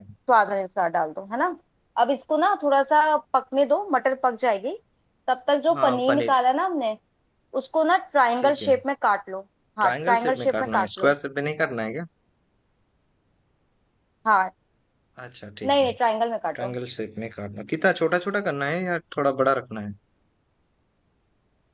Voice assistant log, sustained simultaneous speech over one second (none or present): present